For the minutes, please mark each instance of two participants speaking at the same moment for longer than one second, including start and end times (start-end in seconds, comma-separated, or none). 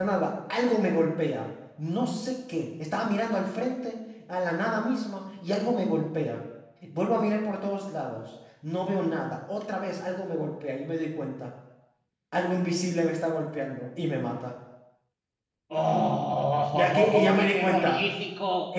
16.7-18.0